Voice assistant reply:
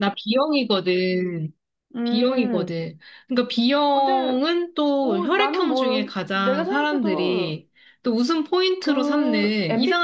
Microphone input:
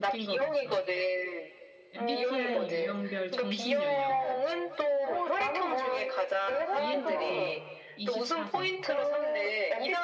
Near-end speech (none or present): present